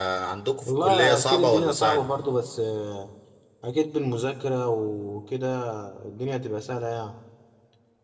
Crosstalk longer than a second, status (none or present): present